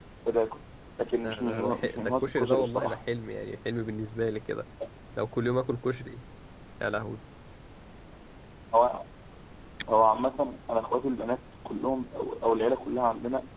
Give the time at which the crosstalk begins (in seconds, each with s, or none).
1.2 s